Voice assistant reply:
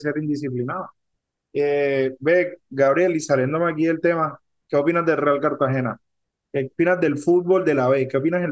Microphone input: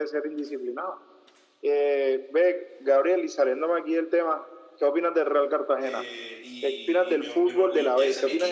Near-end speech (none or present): present